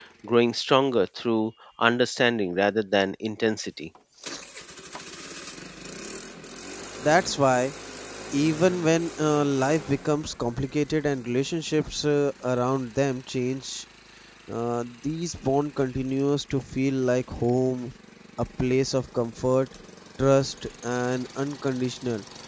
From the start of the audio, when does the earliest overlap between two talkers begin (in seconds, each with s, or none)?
none